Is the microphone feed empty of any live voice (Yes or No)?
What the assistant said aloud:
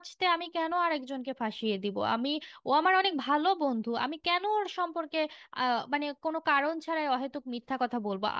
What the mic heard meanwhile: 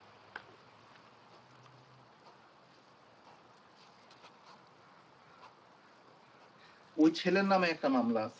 No